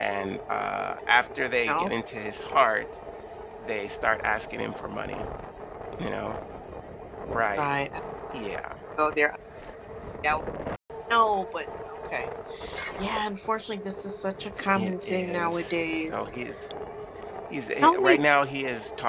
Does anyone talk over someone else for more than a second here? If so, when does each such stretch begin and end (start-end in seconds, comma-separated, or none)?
14.8-16.3